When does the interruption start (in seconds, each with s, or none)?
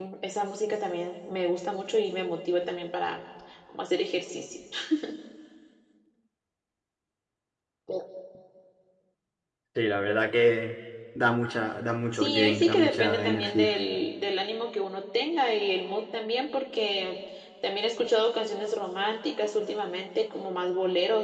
12.1 s